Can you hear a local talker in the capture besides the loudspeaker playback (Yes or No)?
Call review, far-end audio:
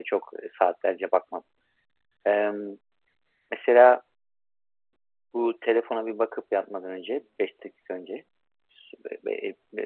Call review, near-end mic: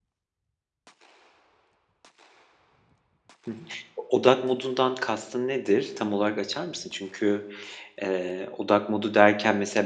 Yes